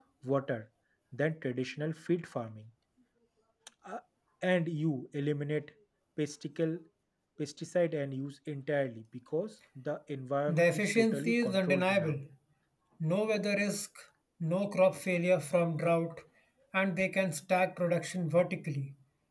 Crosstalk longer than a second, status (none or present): present